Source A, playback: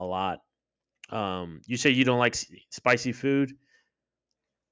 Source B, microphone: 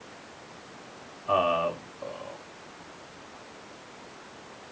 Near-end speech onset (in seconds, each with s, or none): 1.2 s